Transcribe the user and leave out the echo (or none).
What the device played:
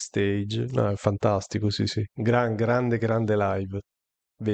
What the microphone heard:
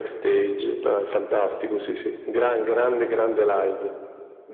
none